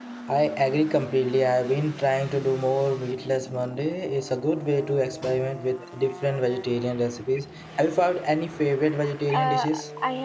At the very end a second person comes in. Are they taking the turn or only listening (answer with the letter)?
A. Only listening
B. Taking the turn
B